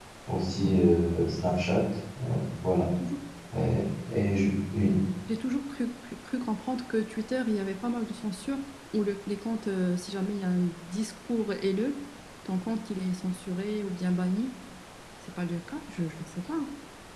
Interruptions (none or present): none